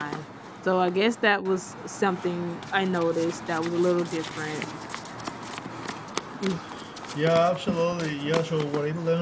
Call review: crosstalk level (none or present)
none